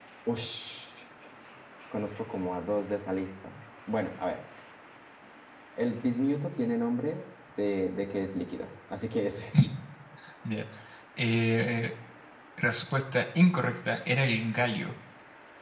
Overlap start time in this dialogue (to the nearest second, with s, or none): none